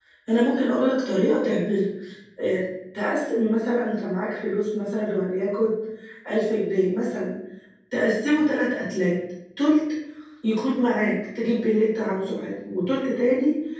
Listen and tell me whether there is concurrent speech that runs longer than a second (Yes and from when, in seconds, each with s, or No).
No